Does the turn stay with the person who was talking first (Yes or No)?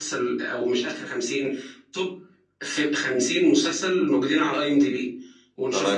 Yes